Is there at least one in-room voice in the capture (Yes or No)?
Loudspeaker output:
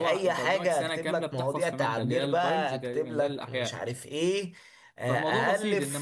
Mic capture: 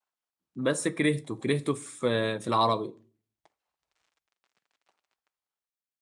Yes